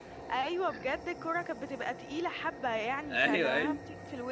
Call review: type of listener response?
listening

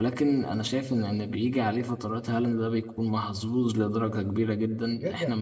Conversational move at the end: taking over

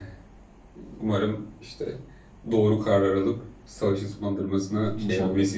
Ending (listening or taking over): taking over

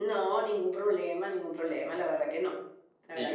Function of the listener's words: taking over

